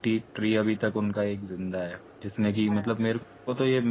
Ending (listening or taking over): listening